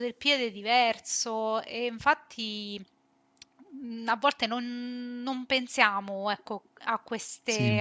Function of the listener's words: listening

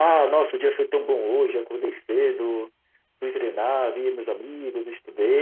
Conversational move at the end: listening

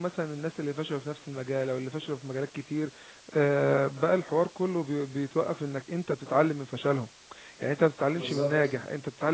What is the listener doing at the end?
listening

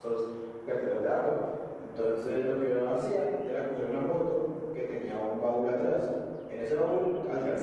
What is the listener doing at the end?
listening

